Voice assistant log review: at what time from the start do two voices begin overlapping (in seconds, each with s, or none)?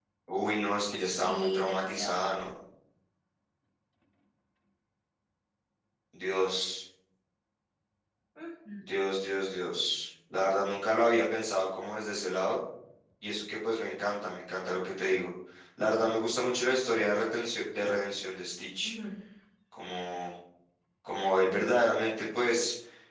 1.0 s